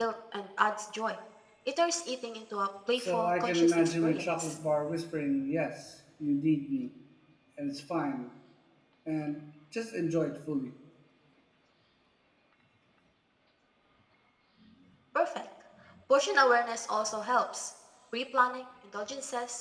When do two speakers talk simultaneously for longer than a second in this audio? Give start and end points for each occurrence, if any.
3.0-4.6

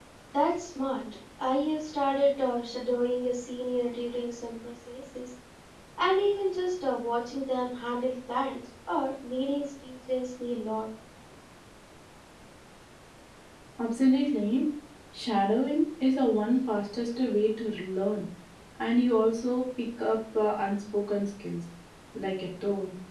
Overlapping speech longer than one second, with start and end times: none

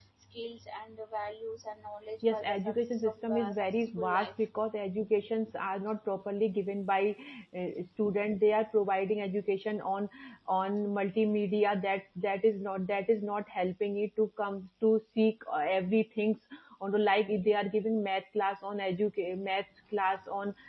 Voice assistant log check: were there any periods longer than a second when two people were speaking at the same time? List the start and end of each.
2.3-4.5

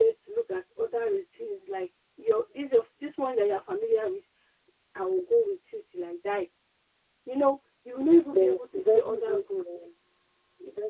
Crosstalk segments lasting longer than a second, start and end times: 8.4-9.9

